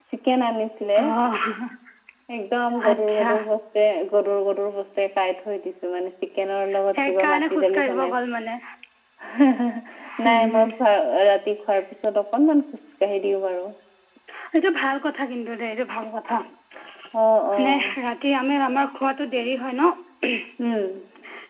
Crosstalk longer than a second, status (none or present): present